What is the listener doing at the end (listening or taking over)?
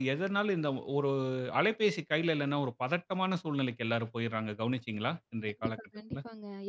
taking over